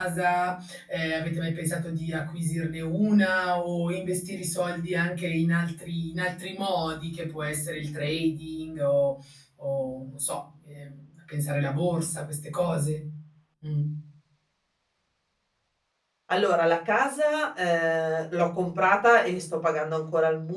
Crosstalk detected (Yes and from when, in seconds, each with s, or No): No